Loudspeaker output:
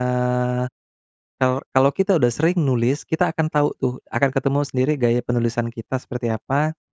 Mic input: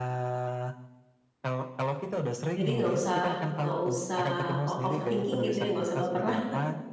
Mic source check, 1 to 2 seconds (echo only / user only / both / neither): echo only